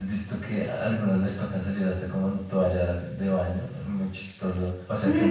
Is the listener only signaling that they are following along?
No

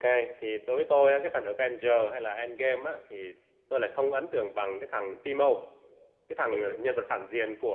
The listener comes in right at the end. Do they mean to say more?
No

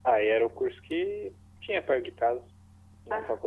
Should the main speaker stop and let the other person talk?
No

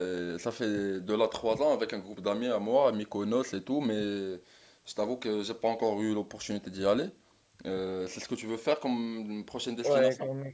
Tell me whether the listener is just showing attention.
No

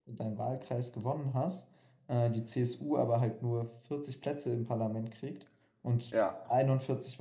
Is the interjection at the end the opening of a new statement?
No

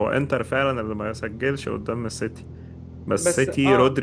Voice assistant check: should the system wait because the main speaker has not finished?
Yes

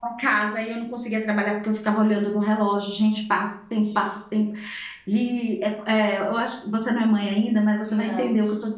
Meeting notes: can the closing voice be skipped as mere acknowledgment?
Yes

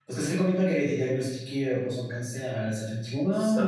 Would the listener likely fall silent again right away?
No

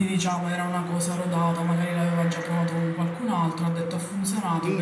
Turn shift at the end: Yes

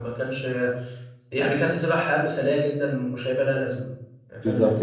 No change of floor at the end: No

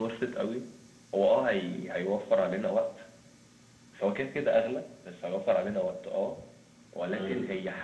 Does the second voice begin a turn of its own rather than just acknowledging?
No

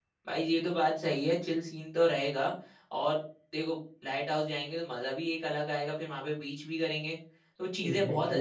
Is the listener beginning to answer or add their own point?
No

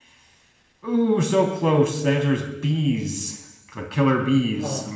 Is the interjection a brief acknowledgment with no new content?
No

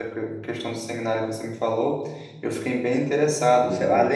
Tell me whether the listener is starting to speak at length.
No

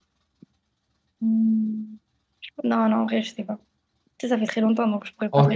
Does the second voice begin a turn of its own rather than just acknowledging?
Yes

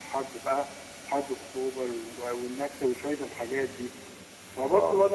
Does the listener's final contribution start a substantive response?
No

